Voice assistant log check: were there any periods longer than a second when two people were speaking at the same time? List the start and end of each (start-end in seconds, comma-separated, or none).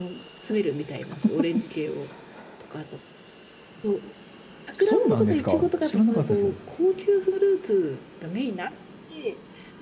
4.8-6.5